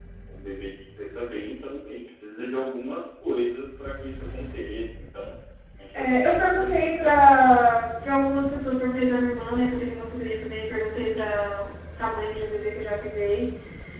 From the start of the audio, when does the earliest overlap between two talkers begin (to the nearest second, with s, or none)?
6 s